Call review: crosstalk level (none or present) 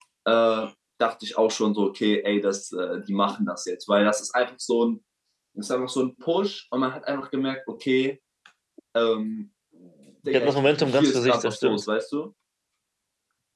present